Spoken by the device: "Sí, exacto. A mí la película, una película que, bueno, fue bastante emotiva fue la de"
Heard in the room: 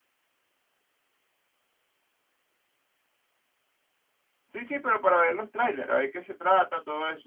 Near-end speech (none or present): present